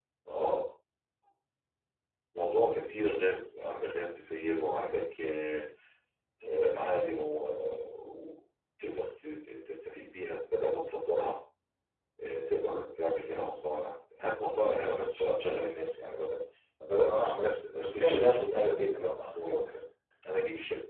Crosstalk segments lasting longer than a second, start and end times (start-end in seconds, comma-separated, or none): 17.8-19.4